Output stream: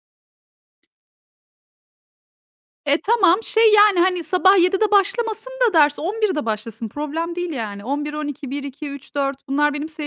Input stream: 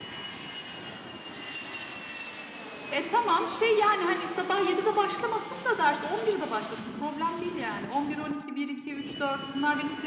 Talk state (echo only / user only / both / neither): echo only